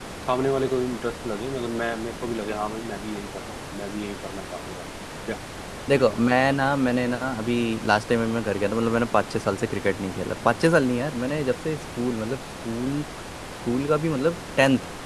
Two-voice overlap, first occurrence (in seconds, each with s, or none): none